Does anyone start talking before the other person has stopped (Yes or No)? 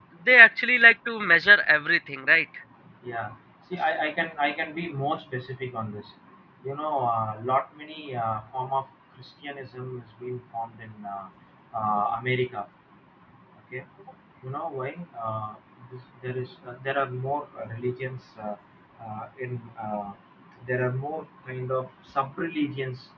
No